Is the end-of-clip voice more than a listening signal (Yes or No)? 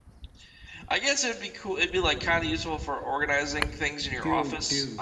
Yes